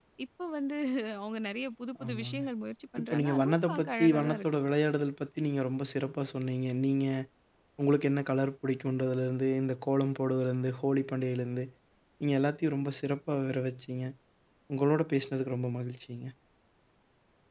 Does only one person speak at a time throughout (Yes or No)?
No